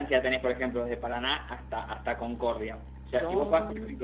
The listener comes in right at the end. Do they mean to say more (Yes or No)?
No